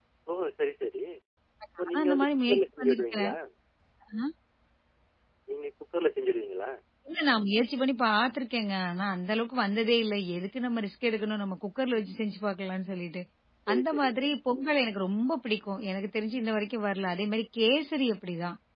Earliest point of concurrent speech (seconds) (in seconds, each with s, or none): 1.9 s